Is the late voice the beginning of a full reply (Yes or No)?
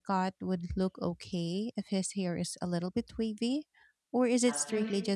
Yes